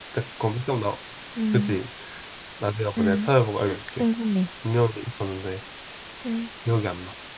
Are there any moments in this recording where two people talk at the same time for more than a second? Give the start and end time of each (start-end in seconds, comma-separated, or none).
none